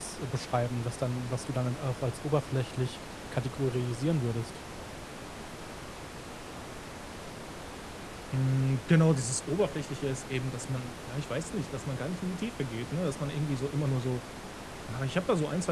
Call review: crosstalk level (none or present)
none